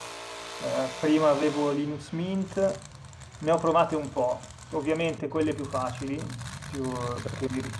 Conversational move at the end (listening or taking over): listening